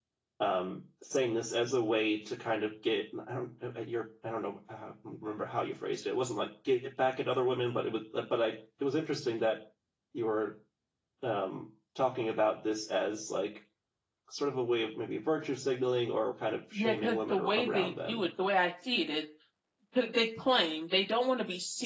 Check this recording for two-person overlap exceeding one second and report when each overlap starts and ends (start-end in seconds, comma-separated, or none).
16.8-18.2